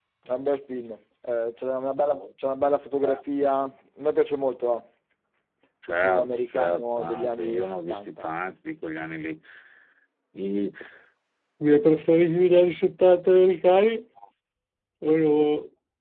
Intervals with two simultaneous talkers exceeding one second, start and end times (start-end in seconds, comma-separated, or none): 5.9-8.1